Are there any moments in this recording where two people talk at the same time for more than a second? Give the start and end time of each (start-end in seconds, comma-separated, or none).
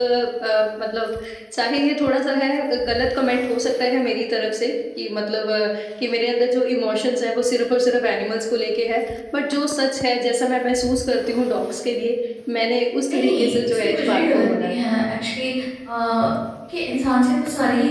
13.1-14.8